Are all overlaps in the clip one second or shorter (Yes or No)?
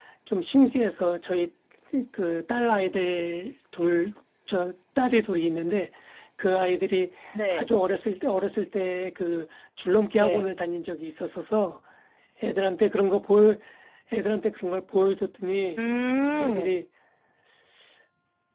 Yes